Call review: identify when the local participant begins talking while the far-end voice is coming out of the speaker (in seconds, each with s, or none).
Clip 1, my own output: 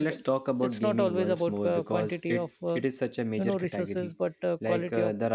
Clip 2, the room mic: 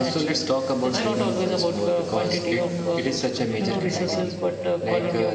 0.9 s